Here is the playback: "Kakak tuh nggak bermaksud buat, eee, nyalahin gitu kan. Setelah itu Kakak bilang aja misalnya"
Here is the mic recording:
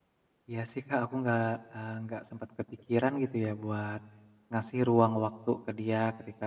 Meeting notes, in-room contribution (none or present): present